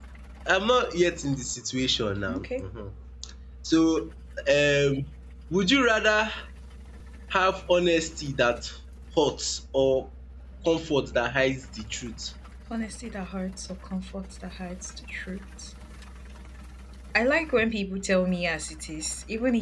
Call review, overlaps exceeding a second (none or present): none